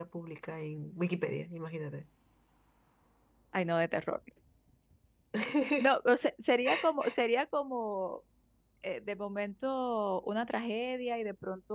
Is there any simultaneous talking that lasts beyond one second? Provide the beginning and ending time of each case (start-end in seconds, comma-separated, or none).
none